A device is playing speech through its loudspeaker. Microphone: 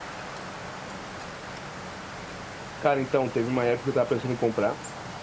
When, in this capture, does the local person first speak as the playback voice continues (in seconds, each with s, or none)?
2.8 s